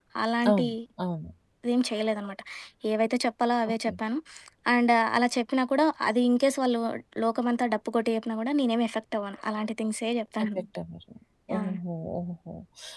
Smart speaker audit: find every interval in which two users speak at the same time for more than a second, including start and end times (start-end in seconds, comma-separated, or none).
none